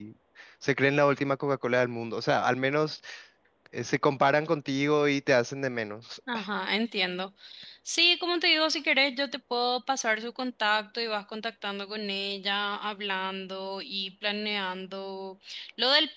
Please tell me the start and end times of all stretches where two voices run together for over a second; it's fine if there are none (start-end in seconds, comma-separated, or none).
none